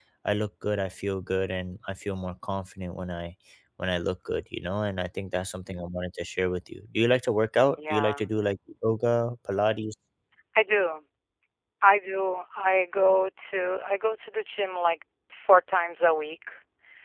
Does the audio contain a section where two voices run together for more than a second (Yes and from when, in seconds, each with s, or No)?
No